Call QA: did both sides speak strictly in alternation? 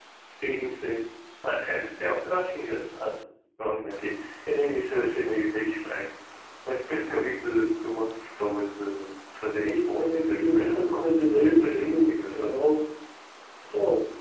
No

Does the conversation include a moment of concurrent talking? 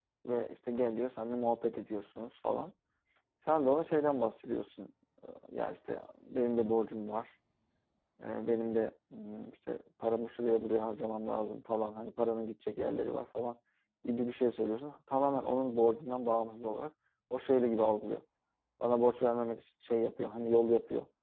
No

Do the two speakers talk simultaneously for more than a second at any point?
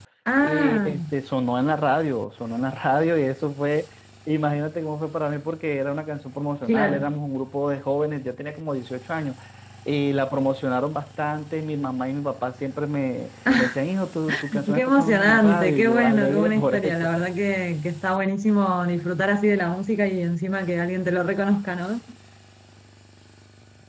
Yes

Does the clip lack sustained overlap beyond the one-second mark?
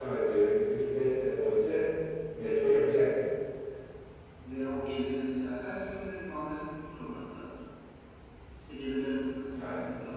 Yes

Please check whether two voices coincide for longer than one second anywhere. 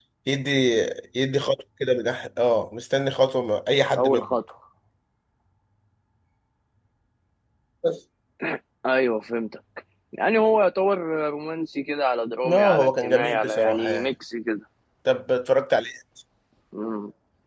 Yes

